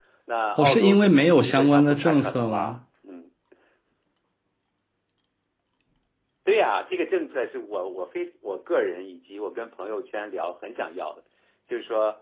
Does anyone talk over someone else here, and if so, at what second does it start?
0.6 s

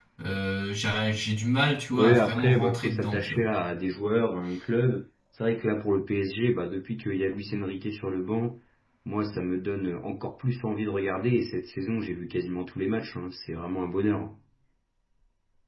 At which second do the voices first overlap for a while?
1.9 s

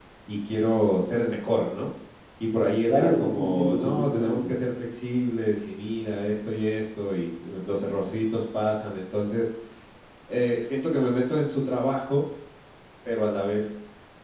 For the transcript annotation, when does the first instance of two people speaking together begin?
2.9 s

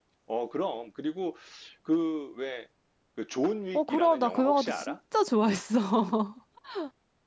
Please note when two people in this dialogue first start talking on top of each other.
3.7 s

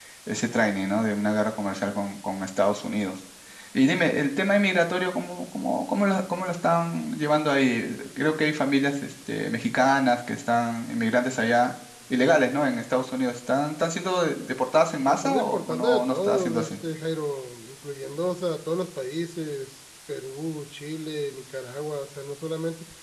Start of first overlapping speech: 15.1 s

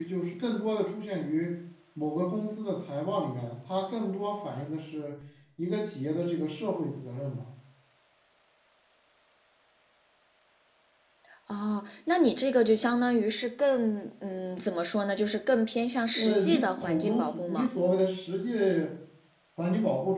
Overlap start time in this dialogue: 16.1 s

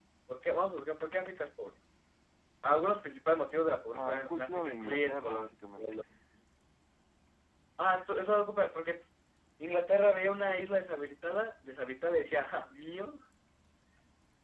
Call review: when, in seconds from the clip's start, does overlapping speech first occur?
3.9 s

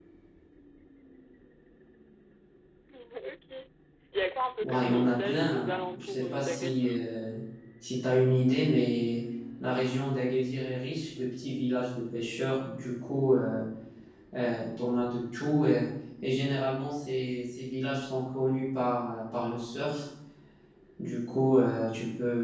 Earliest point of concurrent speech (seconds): 4.6 s

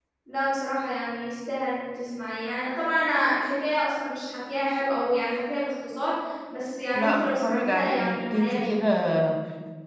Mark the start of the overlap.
6.9 s

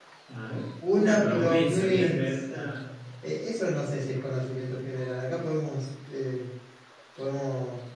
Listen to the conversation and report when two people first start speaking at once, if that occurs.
0.9 s

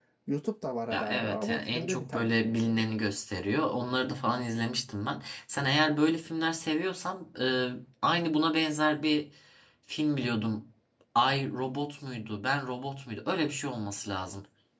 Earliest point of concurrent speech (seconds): 0.9 s

